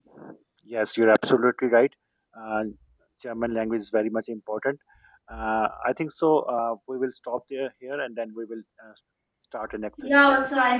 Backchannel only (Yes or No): No